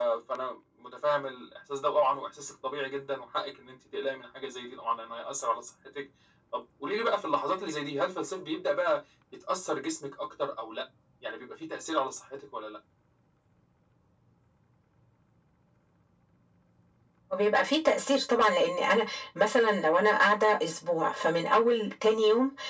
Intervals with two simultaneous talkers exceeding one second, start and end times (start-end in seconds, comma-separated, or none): none